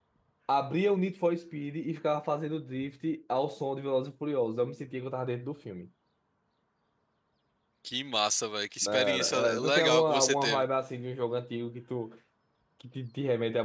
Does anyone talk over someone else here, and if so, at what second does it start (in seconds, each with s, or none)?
8.8 s